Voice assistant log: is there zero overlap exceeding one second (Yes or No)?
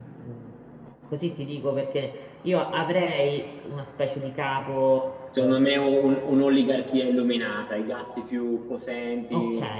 Yes